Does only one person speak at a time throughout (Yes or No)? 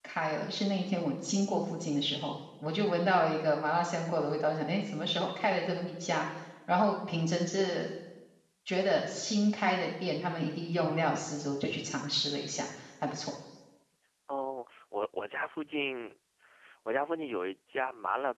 Yes